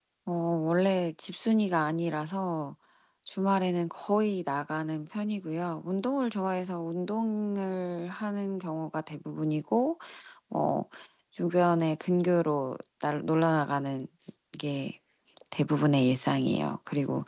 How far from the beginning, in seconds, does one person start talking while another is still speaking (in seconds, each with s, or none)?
none